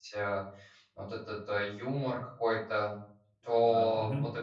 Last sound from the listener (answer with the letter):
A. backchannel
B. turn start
A